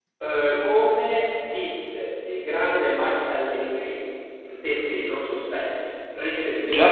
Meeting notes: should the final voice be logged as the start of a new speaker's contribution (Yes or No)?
Yes